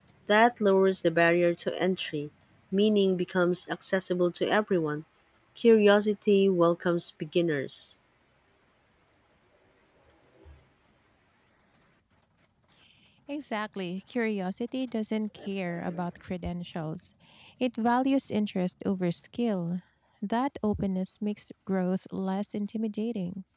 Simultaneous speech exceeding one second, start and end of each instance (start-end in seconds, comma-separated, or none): none